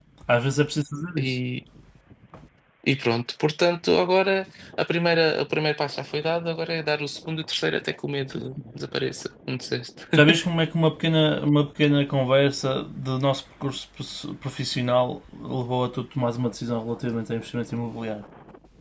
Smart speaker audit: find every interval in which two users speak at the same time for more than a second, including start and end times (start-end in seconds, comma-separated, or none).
none